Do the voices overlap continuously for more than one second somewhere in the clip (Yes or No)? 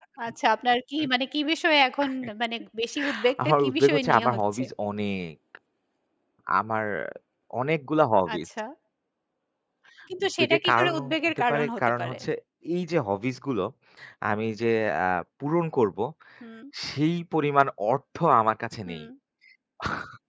Yes